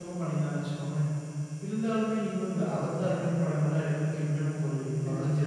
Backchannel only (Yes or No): No